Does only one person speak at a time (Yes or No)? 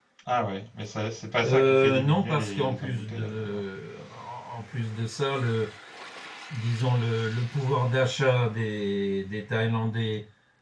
No